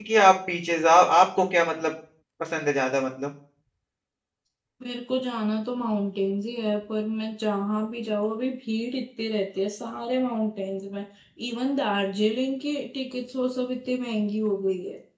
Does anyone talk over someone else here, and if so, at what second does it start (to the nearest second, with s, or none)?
none